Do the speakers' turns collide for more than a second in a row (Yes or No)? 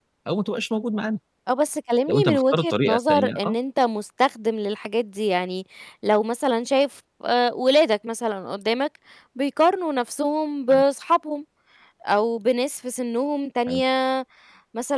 Yes